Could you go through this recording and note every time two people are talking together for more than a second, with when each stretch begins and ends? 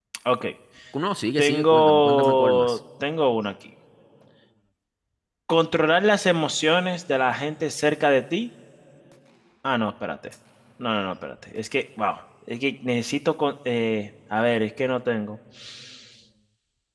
1.4-2.8

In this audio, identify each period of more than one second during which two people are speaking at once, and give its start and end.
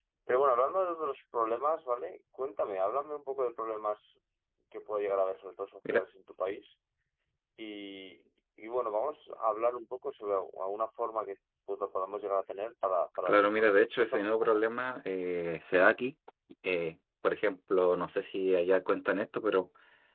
13.2-14.6

